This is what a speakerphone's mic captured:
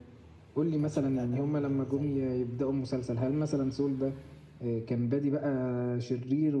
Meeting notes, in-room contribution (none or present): present